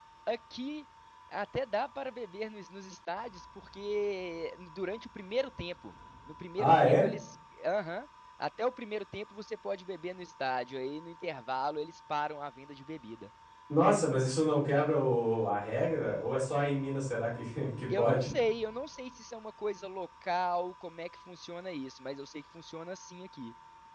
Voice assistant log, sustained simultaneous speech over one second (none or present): none